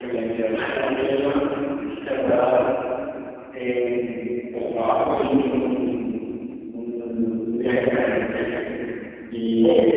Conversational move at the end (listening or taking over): listening